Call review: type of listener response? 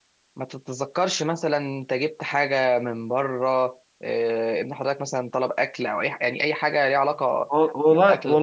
taking over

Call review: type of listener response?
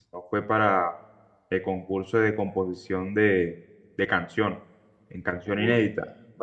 taking over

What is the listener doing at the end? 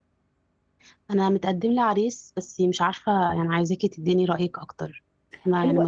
taking over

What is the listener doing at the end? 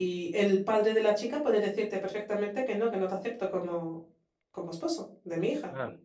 taking over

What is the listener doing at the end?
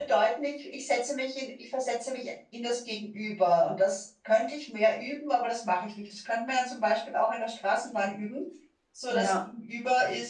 listening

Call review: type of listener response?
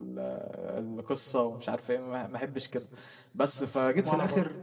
listening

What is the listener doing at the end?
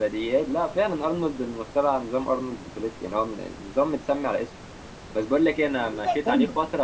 listening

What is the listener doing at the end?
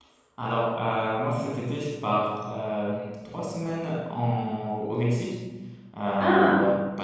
listening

